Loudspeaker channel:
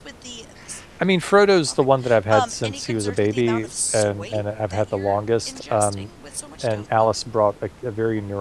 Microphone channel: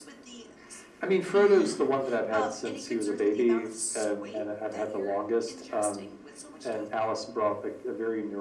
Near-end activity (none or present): present